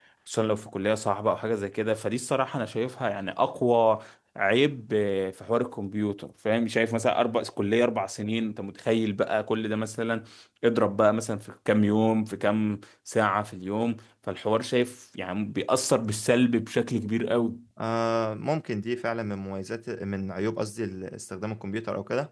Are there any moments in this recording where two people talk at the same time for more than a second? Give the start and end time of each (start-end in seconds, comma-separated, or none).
none